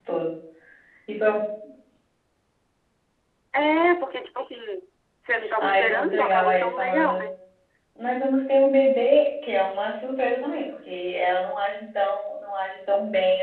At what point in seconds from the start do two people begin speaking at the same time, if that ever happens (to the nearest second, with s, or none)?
5 s